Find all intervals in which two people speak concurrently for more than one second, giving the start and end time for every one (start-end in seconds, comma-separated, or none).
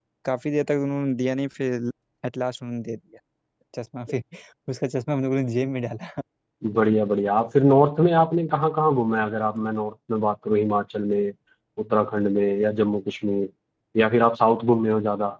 none